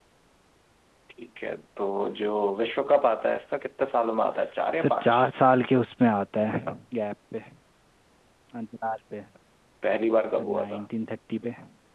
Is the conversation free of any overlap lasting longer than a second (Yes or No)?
Yes